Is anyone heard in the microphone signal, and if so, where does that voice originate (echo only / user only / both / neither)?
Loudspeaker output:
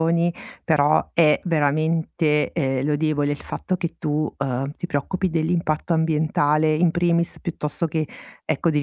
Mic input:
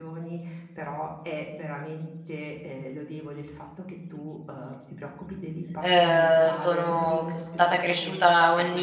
both